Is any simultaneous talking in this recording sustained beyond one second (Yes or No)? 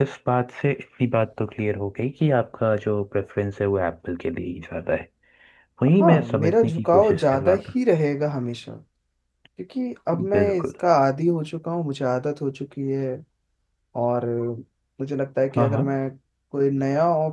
Yes